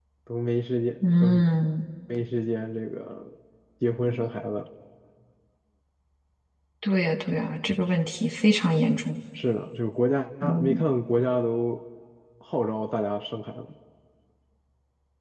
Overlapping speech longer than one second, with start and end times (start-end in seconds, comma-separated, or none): none